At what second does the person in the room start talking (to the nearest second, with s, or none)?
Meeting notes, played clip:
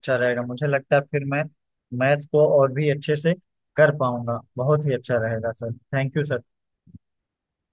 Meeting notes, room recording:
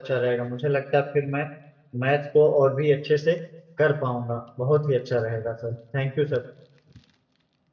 none